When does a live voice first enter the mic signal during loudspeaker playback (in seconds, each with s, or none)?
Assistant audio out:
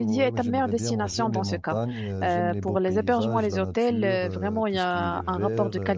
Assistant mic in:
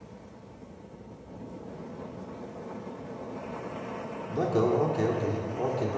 4.3 s